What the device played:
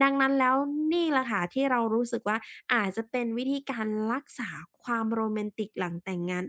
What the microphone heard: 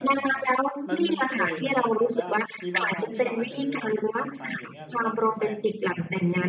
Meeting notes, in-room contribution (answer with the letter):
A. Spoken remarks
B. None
A